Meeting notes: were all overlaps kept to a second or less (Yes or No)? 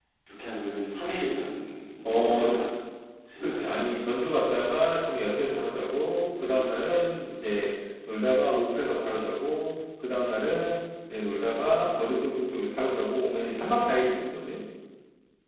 Yes